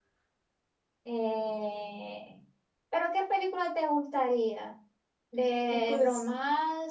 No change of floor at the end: Yes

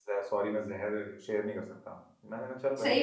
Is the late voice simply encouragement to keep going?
No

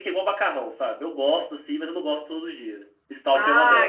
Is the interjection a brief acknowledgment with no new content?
No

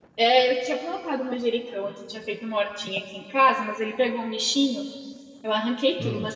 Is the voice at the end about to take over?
No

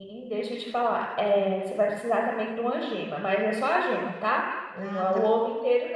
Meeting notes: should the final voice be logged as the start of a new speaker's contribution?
No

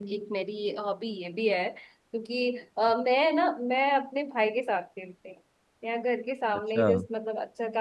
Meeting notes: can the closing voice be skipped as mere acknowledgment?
Yes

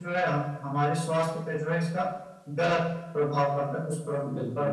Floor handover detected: Yes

